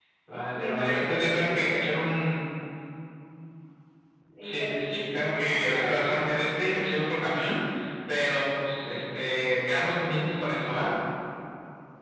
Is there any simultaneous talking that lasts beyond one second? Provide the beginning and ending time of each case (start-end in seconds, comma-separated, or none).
0.5-1.8, 4.4-6.2